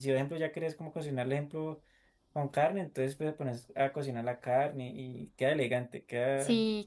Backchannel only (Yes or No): No